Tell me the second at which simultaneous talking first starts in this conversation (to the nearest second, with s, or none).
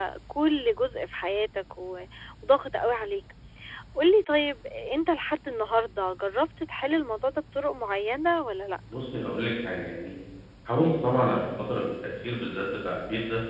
none